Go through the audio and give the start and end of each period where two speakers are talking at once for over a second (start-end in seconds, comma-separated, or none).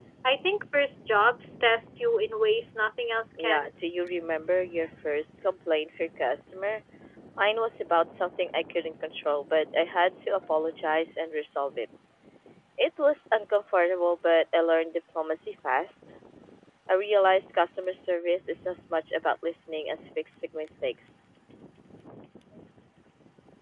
none